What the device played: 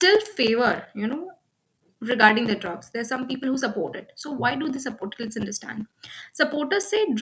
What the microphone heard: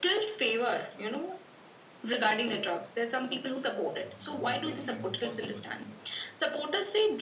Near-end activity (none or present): present